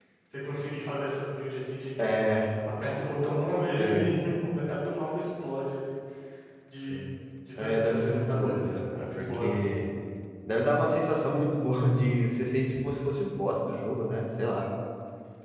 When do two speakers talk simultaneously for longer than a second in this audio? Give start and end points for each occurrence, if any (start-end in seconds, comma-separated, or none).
7.6-9.7